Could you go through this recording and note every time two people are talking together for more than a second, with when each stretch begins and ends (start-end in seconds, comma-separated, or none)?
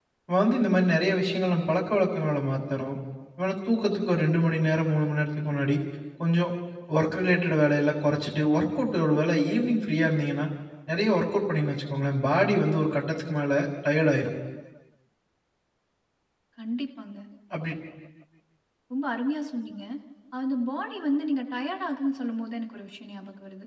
none